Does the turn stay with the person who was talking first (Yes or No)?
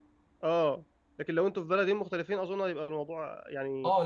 No